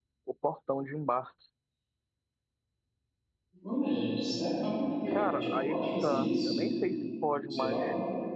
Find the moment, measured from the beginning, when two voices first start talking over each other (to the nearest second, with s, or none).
5 s